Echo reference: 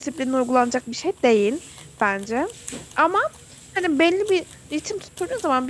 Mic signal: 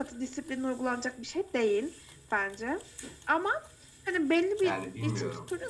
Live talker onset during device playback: 5 s

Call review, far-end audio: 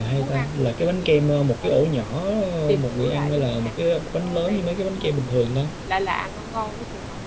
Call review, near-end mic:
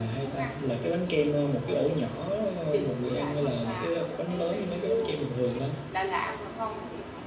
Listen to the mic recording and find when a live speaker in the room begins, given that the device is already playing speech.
3 s

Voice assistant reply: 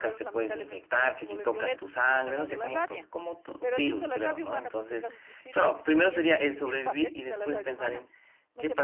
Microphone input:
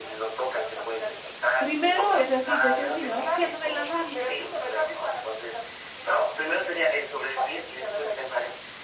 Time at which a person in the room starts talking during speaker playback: 2 s

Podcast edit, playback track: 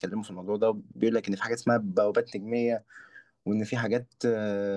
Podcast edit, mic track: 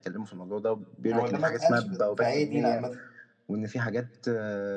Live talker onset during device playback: 1 s

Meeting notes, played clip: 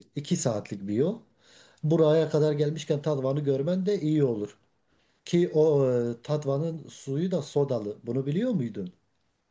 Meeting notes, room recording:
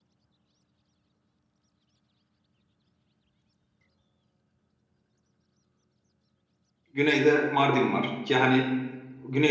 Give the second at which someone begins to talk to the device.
7 s

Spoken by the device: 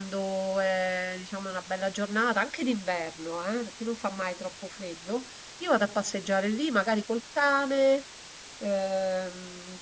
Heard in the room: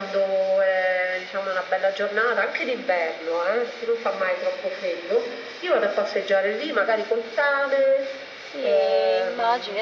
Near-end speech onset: 9 s

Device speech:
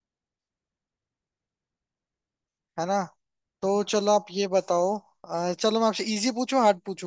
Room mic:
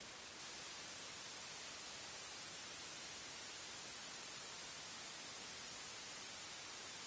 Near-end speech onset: none

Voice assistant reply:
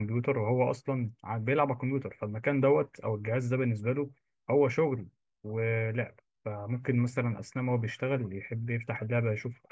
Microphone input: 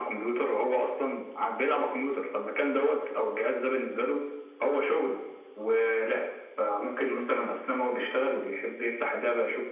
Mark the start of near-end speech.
none

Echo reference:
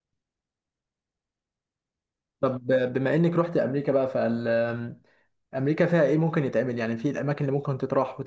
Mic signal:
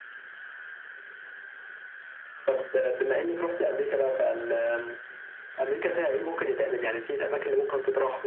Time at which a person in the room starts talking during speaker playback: none

